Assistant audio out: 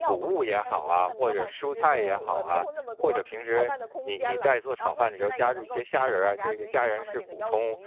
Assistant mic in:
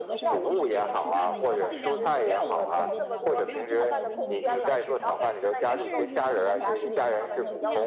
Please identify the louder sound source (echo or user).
echo